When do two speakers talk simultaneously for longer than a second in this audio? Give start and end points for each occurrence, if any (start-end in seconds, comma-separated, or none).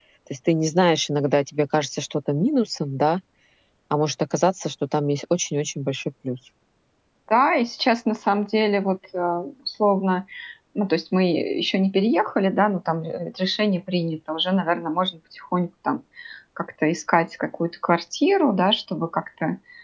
none